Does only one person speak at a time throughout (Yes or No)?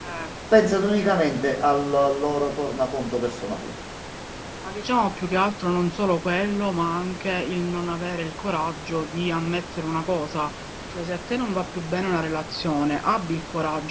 Yes